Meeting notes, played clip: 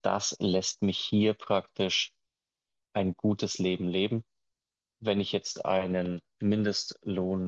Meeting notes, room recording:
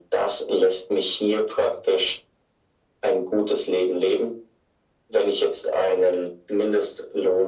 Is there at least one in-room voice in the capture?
No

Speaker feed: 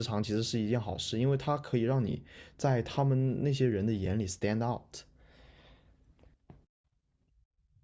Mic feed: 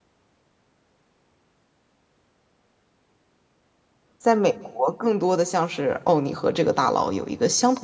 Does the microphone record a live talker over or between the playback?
Yes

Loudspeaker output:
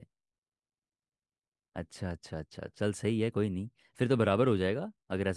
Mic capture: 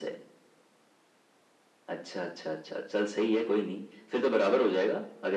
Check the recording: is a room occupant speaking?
No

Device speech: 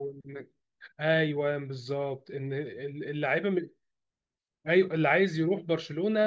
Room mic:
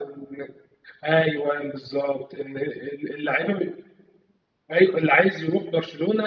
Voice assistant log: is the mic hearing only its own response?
Yes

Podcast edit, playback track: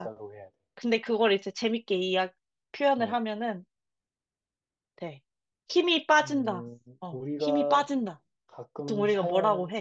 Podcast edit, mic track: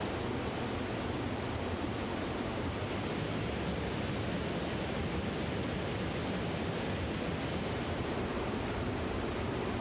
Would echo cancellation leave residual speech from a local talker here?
No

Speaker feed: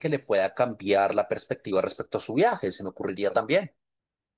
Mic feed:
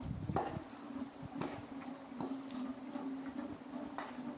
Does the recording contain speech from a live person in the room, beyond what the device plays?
No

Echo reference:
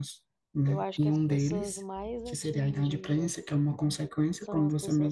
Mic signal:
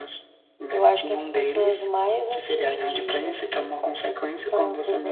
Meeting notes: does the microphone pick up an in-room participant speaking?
No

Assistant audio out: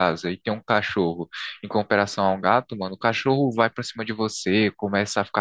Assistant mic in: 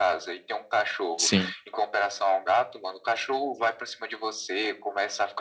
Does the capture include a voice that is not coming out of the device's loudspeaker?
Yes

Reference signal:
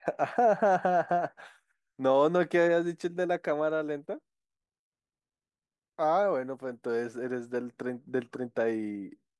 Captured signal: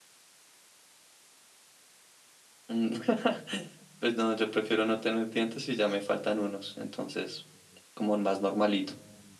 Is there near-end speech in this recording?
Yes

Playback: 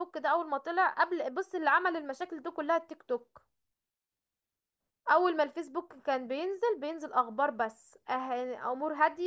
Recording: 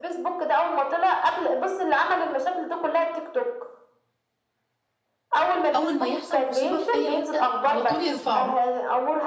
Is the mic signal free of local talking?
No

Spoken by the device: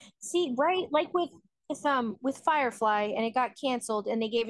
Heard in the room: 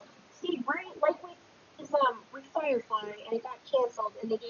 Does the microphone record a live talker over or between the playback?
No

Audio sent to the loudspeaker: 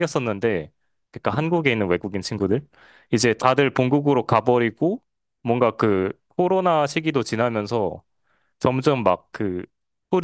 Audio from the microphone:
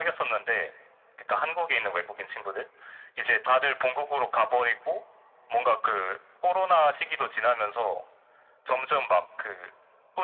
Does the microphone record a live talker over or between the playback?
No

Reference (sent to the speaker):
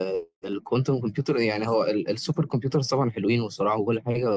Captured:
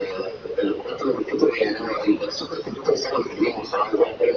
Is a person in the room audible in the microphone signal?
No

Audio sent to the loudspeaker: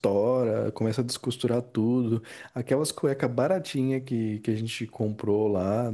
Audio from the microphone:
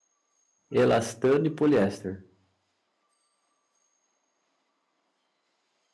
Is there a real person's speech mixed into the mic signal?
Yes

